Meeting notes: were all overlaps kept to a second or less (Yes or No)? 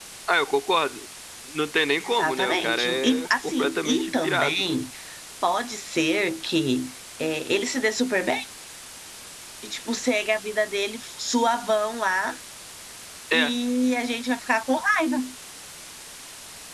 No